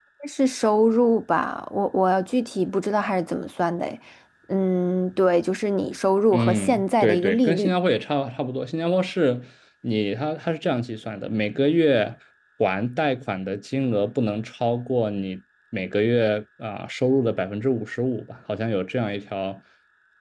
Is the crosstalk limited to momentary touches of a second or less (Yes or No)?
No